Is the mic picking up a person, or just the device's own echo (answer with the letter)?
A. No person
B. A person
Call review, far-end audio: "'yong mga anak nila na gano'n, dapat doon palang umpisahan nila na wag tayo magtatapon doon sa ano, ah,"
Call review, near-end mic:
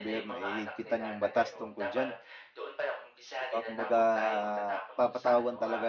B